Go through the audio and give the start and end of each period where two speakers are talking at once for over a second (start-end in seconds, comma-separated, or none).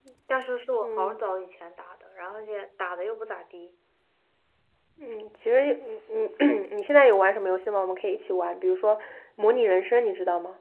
none